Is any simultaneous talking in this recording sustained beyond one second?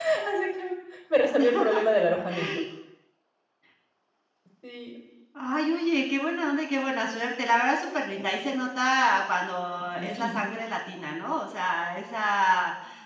No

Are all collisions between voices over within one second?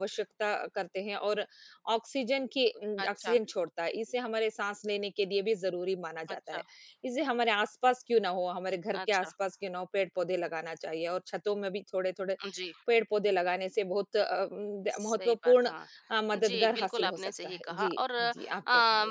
No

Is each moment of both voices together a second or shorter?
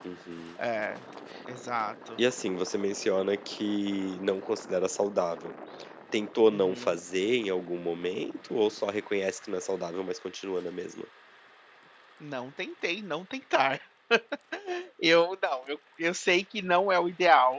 Yes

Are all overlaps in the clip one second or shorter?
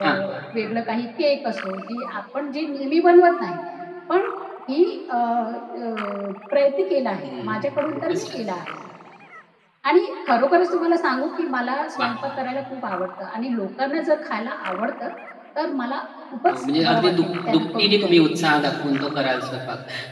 No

